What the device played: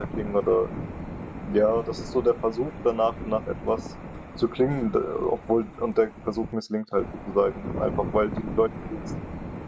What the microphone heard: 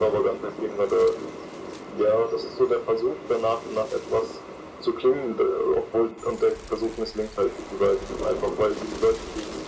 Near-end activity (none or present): none